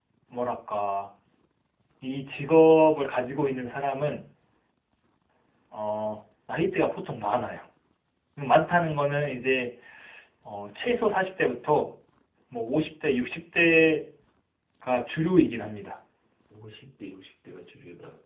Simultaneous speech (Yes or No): No